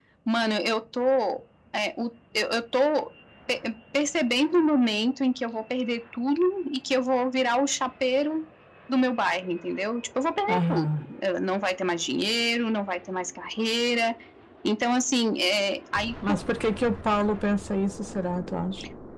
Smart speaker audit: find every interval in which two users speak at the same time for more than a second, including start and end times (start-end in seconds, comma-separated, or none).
none